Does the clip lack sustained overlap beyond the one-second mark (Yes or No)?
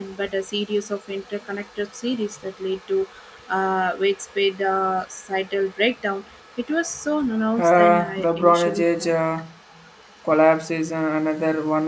No